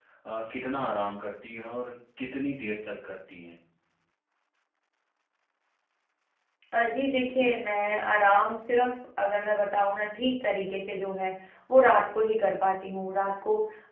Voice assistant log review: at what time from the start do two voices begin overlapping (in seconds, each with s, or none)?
none